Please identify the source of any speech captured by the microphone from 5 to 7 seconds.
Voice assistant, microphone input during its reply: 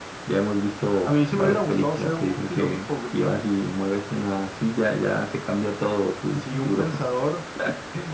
echo only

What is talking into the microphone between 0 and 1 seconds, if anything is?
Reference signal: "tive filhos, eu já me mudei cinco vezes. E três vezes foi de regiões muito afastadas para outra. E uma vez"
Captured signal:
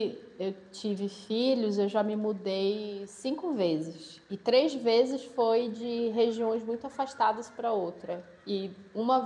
echo only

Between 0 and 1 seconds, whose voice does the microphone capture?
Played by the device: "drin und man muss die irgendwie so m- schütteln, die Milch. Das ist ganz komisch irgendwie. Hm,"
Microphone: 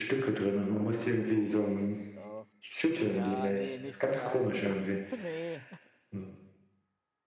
echo only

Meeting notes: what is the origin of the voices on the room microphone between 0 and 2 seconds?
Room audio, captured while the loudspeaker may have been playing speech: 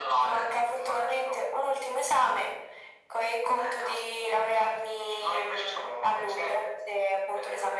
echo only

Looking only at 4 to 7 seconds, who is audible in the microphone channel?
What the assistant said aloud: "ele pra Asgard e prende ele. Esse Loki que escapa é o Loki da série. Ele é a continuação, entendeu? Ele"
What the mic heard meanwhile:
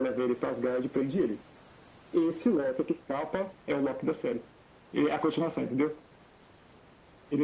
echo only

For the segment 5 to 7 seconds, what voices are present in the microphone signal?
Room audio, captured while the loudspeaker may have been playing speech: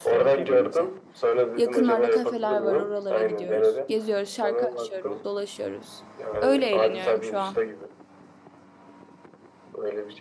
both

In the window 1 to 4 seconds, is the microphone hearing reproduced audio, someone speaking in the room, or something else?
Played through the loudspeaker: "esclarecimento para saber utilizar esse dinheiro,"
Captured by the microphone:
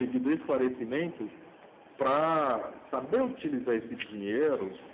echo only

